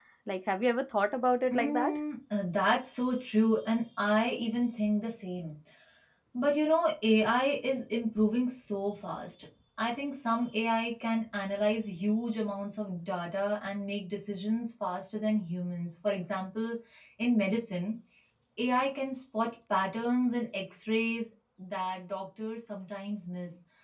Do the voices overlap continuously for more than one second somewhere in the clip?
No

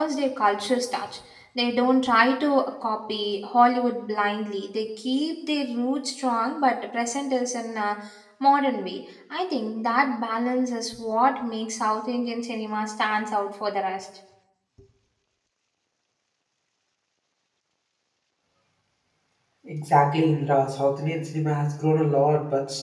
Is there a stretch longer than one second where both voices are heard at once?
No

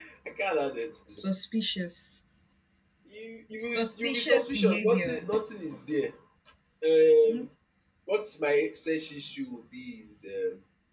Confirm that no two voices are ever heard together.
No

